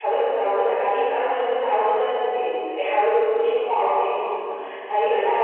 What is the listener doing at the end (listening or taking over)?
listening